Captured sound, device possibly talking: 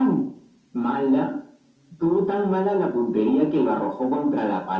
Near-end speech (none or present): none